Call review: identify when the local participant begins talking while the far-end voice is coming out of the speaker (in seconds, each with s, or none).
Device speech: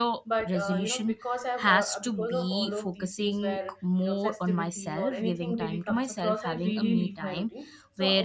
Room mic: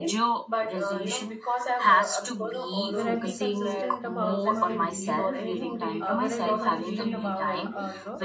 2.9 s